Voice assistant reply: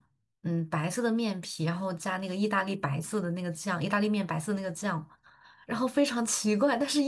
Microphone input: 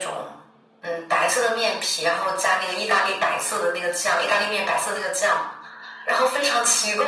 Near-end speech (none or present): none